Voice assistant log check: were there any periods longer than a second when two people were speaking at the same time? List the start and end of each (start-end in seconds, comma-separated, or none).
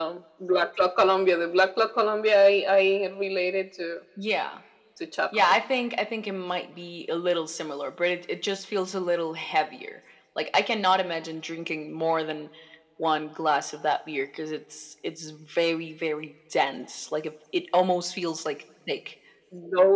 none